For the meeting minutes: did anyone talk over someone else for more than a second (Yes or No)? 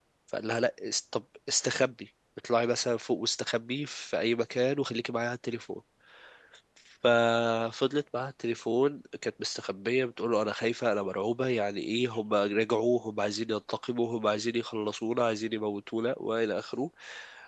No